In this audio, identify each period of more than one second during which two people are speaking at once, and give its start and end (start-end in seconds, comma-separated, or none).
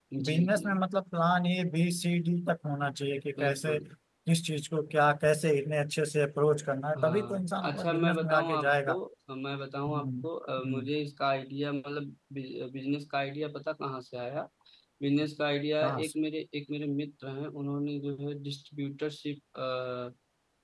7.0-9.0